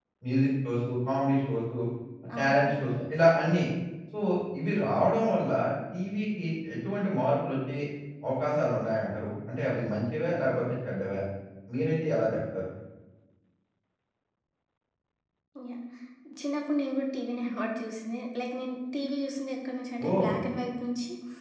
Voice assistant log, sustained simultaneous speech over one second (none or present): none